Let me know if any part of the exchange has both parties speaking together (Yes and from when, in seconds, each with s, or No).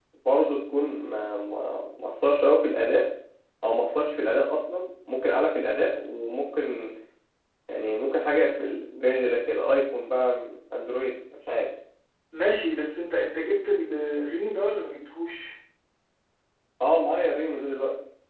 No